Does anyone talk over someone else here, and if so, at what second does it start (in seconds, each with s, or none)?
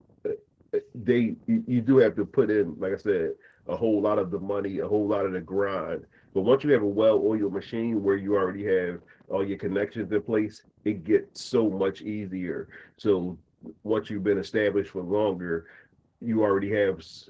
none